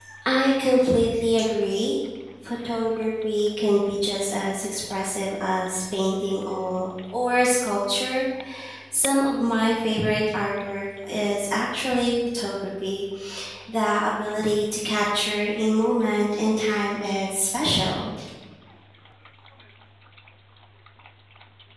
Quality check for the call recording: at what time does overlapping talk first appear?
none

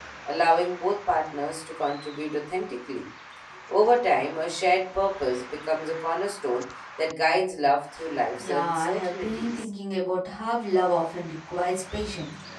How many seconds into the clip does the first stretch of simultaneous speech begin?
8.4 s

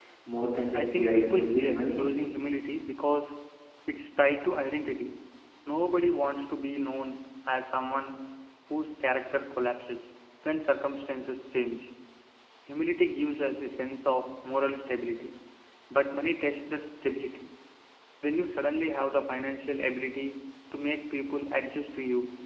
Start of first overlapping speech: 0.7 s

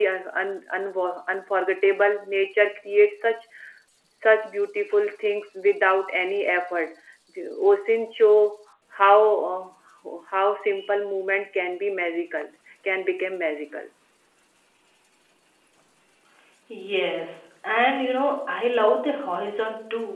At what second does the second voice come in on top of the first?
none

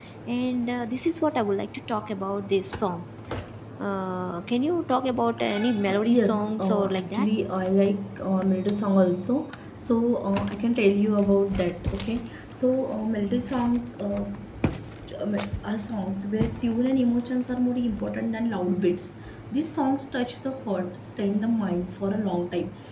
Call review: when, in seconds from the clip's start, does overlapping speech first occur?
5.9 s

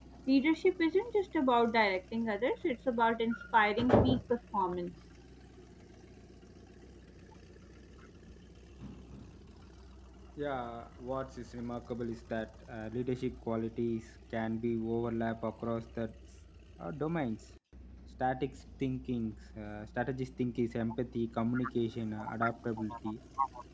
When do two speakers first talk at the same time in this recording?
none

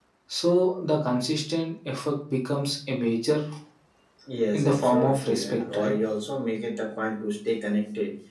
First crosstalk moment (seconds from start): 4.5 s

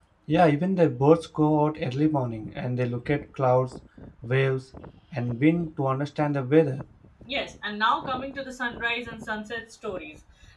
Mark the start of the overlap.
none

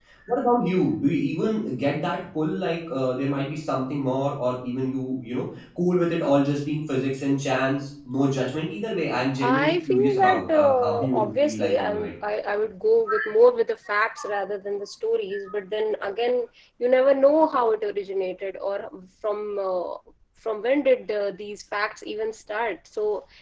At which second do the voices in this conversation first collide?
9.4 s

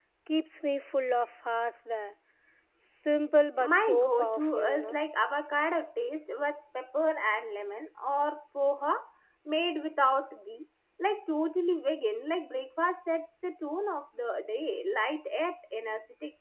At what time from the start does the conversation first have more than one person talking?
3.6 s

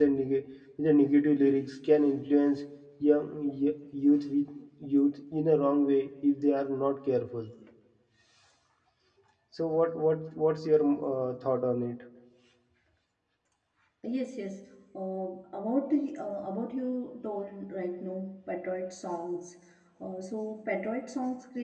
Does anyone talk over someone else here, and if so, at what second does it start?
none

